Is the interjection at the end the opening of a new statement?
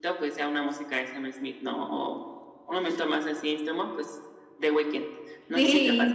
Yes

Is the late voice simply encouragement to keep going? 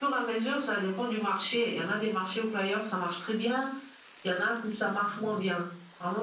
Yes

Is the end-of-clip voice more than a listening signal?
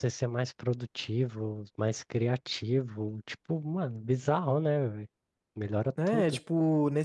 Yes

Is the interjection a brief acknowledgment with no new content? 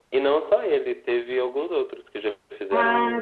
No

